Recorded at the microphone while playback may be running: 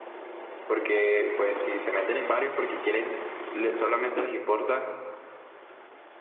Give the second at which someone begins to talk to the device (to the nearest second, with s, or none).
1 s